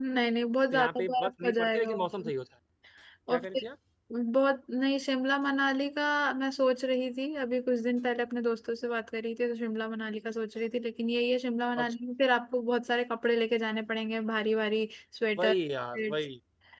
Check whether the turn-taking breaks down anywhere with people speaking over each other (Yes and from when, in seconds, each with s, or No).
Yes, from 0.7 s